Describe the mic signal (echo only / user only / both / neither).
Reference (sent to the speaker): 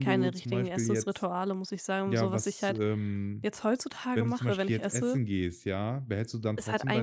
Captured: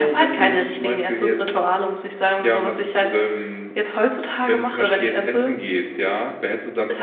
echo only